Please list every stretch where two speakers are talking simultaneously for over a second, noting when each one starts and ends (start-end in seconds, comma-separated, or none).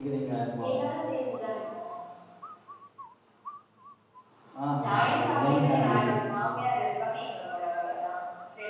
4.8-6.0